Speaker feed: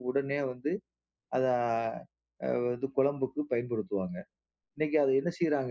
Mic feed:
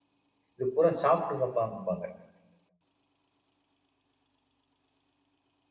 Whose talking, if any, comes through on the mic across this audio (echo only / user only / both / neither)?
user only